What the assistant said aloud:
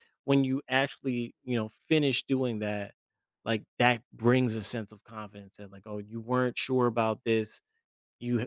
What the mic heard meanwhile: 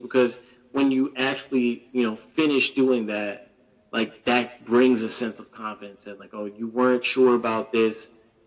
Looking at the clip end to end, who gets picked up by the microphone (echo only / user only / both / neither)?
echo only